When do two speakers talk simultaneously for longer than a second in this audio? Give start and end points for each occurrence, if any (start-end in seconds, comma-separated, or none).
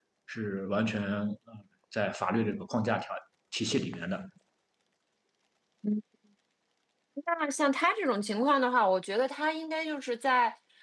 none